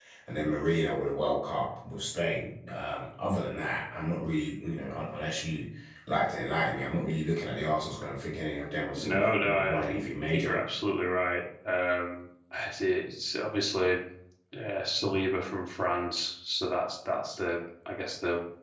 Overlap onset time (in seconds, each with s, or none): 8.9 s